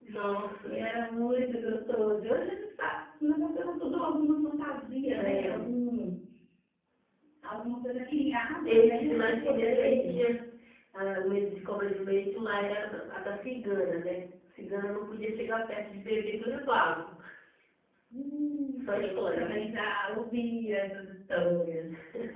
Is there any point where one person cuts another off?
Yes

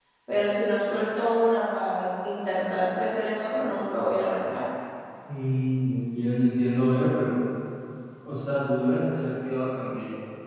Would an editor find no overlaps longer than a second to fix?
Yes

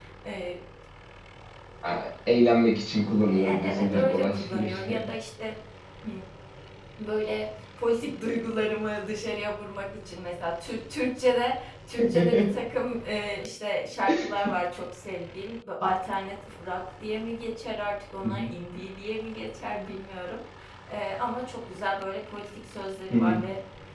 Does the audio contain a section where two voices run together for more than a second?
Yes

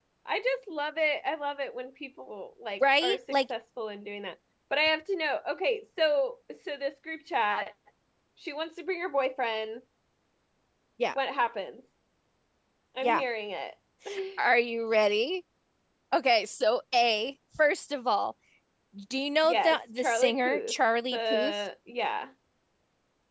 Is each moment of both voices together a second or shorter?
No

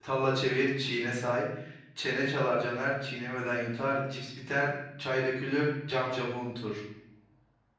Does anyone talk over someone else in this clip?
No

